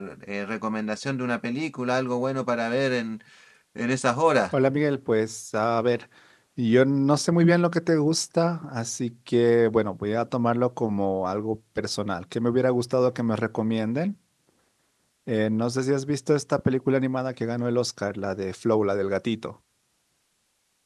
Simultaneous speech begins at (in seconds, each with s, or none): none